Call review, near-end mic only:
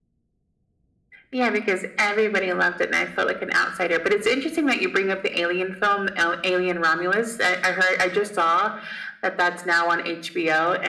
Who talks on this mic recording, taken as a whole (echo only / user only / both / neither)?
echo only